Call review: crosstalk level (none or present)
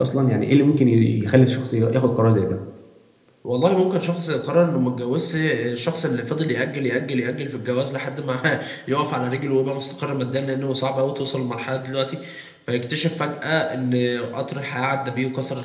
none